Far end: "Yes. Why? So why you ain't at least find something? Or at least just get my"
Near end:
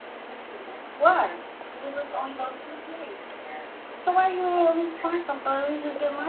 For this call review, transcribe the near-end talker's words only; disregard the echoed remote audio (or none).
none